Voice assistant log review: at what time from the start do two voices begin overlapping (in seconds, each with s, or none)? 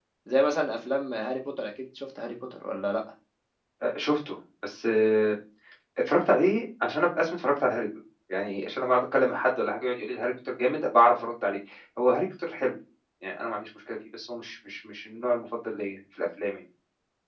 none